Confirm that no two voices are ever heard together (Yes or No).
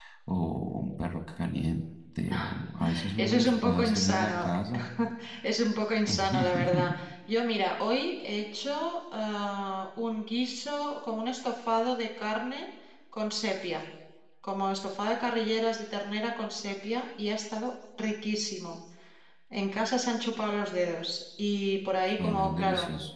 No